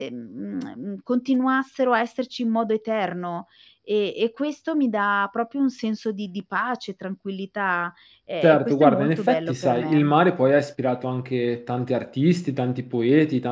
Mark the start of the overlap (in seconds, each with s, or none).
8.4 s